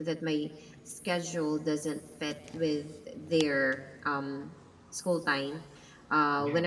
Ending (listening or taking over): listening